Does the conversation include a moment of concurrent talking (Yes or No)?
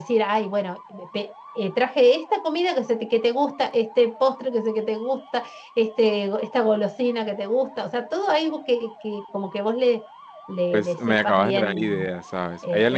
Yes